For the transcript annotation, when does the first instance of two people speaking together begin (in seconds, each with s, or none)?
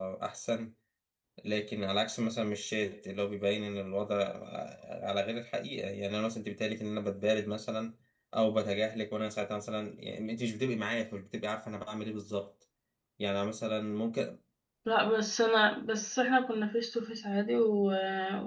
none